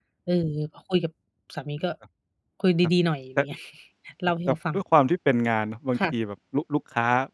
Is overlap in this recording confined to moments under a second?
Yes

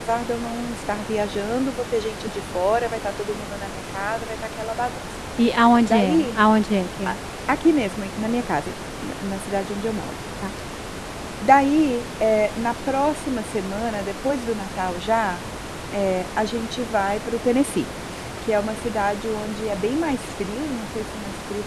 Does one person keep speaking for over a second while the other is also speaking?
No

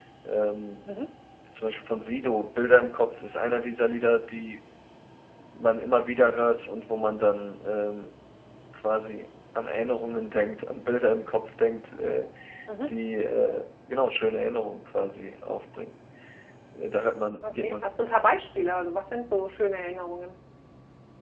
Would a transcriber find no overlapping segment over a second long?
Yes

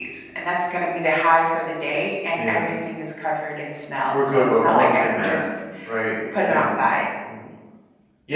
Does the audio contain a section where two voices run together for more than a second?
Yes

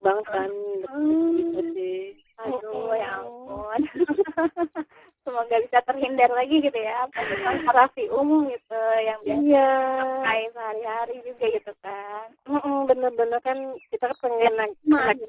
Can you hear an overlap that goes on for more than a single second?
Yes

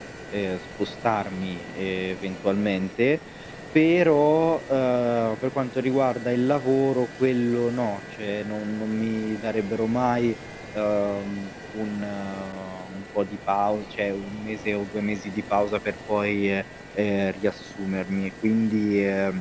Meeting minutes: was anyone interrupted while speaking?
No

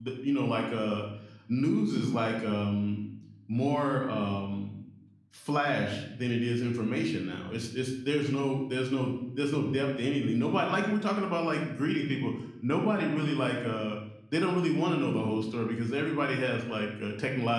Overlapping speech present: No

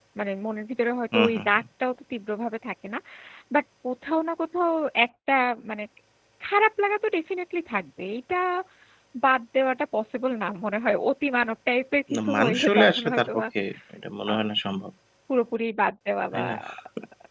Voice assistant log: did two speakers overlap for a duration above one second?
Yes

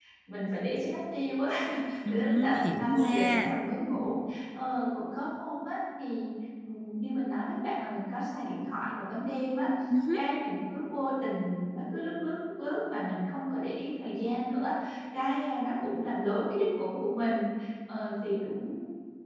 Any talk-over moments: Yes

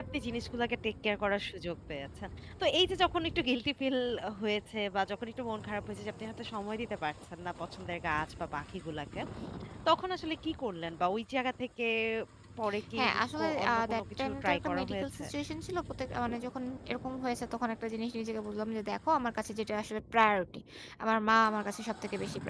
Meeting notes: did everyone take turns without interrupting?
No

